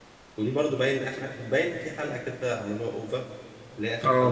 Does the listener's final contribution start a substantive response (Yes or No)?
Yes